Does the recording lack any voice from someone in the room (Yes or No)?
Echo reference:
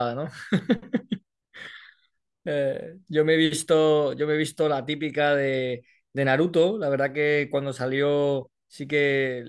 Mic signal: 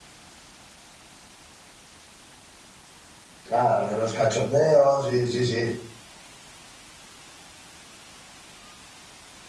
No